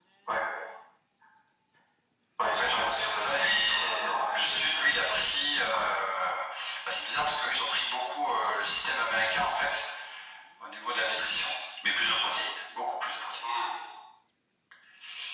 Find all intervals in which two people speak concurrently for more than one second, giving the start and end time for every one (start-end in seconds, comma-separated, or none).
2.6-4.8